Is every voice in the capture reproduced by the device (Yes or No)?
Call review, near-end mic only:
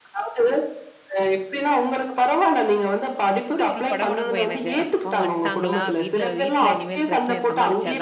No